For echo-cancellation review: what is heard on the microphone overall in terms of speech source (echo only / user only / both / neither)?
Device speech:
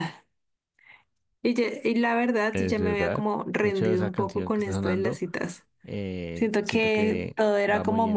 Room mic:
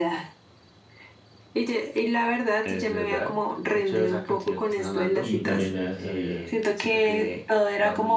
both